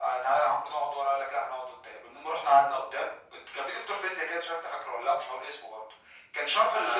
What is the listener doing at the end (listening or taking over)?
listening